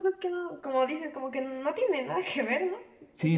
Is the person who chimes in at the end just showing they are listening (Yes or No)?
No